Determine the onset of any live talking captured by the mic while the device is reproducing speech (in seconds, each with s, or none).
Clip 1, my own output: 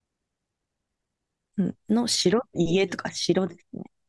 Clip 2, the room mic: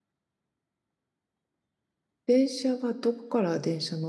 2.2 s